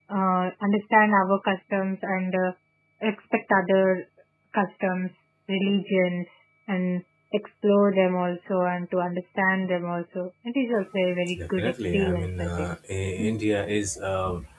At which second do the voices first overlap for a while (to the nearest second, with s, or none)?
11 s